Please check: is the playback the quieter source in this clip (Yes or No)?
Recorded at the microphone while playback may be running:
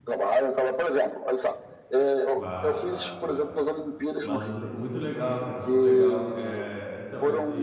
No